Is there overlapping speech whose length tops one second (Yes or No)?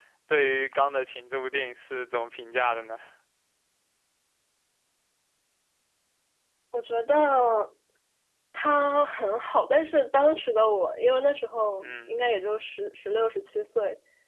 No